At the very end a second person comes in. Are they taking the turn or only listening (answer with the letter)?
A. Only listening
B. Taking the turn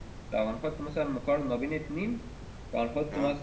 A